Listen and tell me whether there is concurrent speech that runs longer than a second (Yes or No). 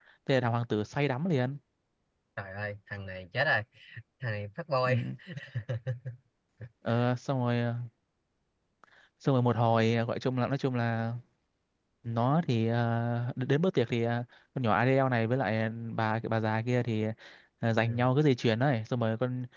No